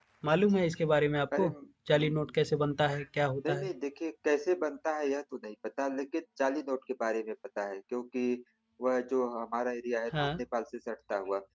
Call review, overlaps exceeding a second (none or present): none